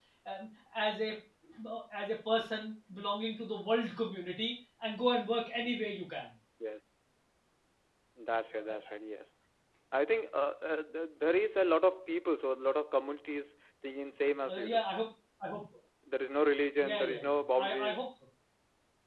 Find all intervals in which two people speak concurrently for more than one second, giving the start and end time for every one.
16.8-18.0

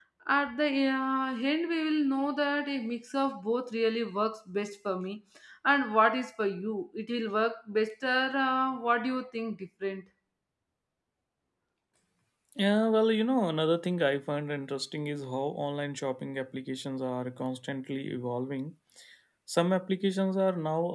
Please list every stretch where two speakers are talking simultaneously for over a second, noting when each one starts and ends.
none

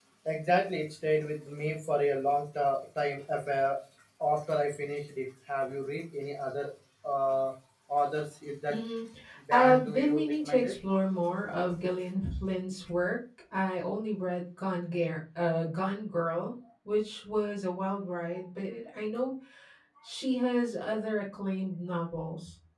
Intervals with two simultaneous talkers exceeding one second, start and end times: 9.5-10.8

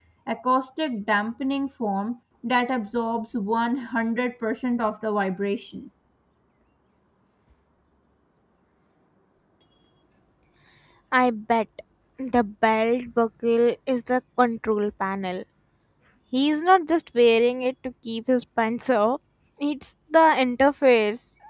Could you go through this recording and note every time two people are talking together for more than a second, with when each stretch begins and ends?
none

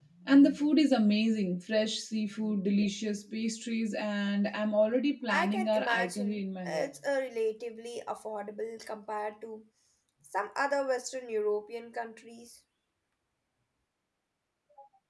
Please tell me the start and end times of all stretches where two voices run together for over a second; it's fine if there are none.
5.3-7.0

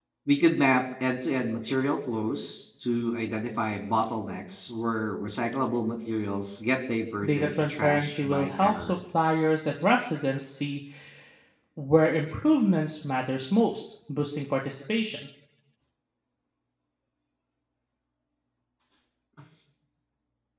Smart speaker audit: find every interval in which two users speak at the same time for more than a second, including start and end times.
7.2-9.0

